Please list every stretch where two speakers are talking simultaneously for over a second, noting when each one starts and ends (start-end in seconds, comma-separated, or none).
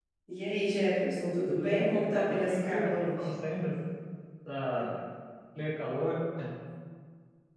1.5-3.3